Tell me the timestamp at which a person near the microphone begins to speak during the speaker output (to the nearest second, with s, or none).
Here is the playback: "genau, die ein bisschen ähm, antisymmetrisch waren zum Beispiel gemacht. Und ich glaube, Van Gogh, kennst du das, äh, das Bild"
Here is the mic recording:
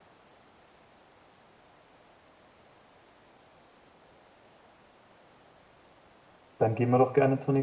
7 s